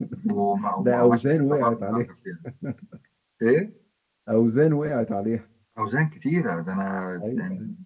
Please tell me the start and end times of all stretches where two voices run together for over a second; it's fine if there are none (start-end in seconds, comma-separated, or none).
0.8-2.0